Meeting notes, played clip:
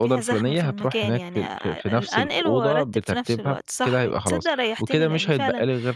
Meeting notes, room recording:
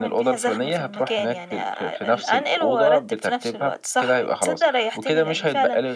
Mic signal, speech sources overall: echo only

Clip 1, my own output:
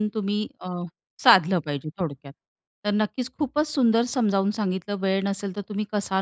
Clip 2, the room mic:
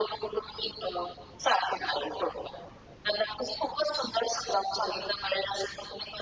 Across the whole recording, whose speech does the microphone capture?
echo only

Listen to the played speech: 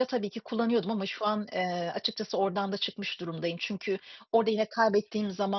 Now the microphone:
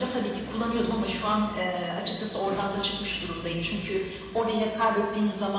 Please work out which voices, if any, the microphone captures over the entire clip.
echo only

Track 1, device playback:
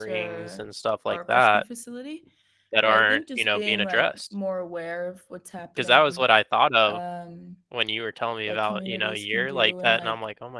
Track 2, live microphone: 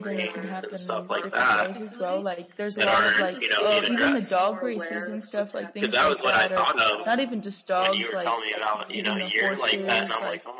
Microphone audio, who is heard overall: both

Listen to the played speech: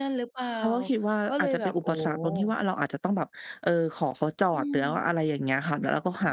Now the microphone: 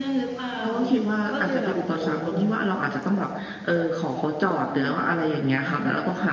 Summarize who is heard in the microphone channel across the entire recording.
echo only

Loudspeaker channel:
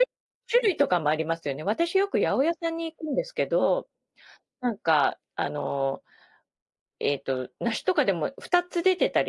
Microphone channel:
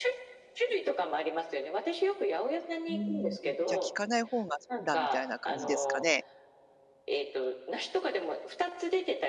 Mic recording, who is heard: both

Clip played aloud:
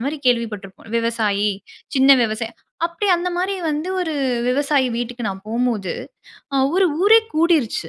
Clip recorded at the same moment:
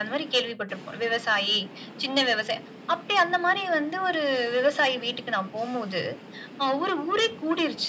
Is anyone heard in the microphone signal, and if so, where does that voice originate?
echo only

